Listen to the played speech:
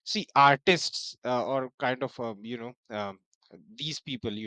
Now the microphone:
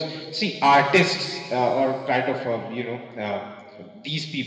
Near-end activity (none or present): none